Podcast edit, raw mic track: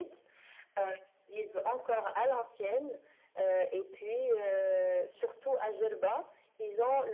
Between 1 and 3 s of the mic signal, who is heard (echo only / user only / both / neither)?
echo only